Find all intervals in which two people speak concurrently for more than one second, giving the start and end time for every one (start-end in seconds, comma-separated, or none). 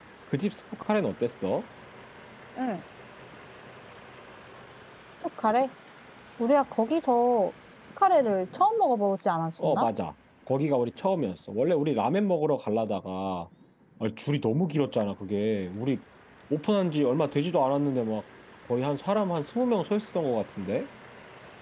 none